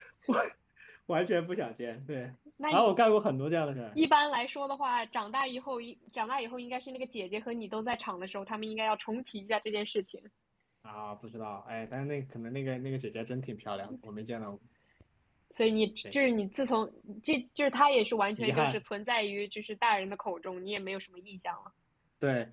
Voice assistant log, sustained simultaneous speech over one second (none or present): none